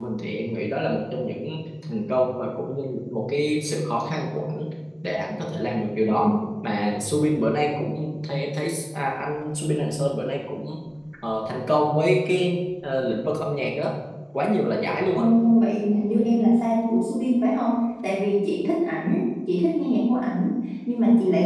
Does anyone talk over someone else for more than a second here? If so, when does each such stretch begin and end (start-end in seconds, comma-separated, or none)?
none